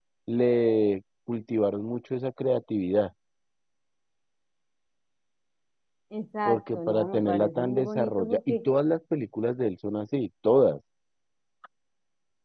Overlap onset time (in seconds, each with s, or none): 6.4 s